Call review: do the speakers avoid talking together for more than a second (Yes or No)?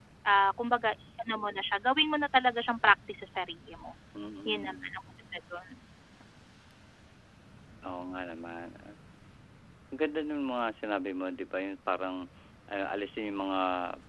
Yes